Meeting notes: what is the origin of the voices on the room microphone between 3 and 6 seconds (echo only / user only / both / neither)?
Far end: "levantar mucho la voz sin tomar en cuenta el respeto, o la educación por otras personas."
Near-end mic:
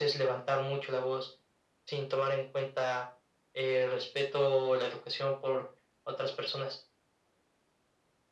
echo only